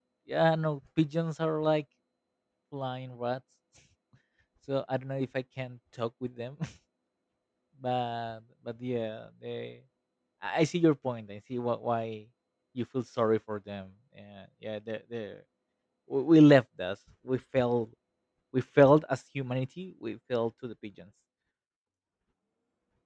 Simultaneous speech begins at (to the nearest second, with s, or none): none